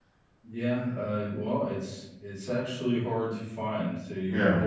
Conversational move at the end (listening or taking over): listening